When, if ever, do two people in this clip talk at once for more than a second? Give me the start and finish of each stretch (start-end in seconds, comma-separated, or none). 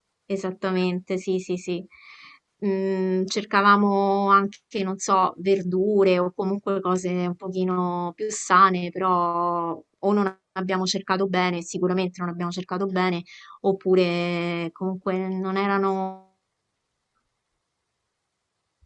none